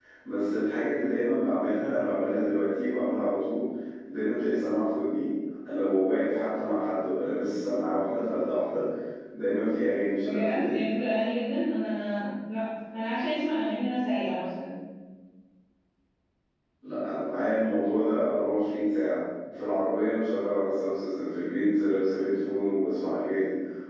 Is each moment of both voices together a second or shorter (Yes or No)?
Yes